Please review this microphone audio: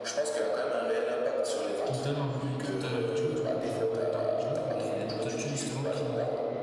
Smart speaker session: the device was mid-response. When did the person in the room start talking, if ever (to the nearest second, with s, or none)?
2 s